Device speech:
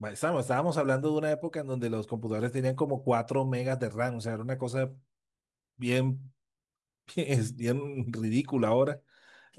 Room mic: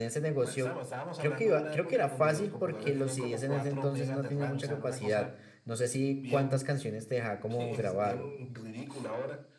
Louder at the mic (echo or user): user